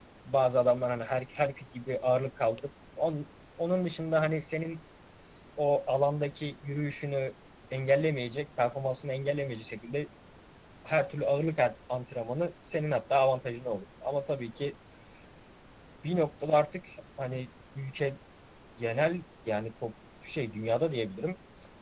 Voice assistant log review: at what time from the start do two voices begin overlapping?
none

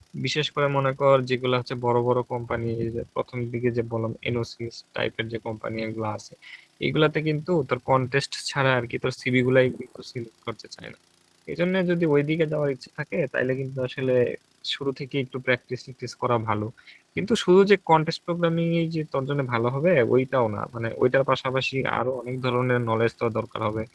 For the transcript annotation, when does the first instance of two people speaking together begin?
none

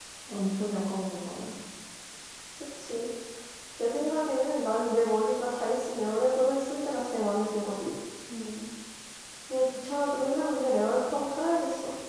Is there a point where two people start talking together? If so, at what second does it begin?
none

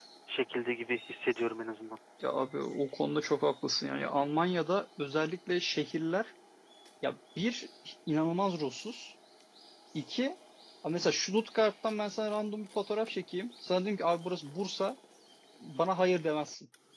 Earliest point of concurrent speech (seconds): none

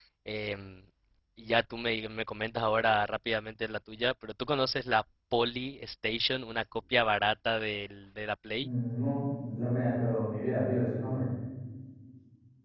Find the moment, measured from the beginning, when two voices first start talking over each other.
none

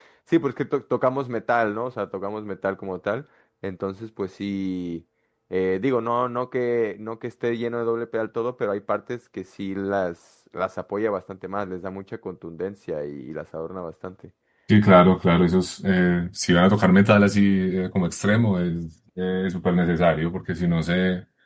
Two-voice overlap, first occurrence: none

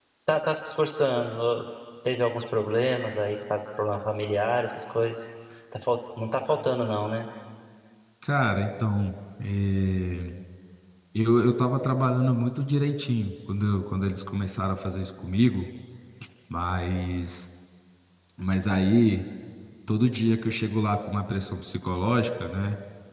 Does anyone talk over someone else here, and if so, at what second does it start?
none

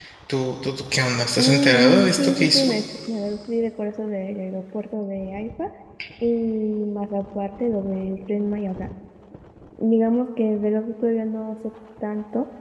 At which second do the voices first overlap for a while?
1.4 s

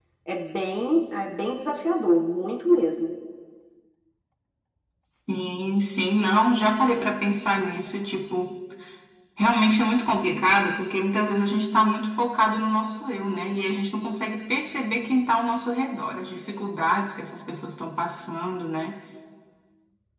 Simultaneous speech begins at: none

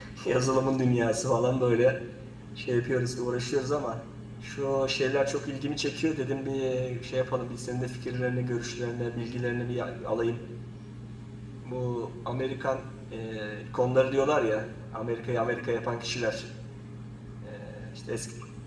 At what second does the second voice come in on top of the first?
none

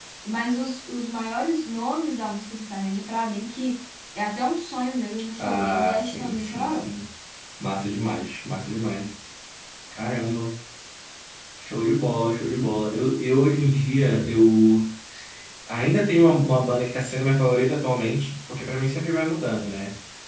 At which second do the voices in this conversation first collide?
5.4 s

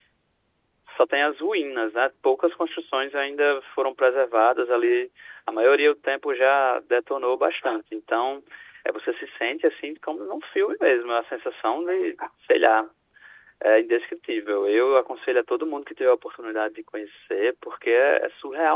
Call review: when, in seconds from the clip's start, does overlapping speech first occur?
none

